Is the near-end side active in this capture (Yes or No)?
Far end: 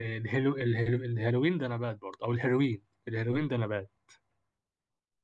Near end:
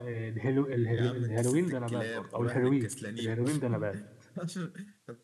Yes